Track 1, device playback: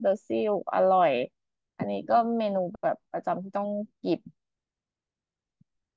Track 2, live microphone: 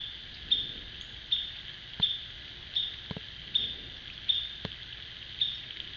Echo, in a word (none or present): none